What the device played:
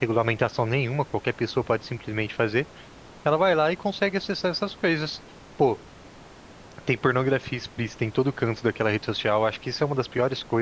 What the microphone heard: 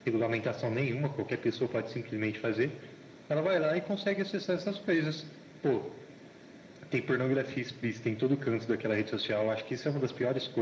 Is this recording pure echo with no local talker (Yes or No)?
Yes